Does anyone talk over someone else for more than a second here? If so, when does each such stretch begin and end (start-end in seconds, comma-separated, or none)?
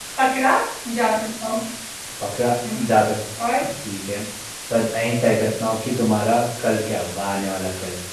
none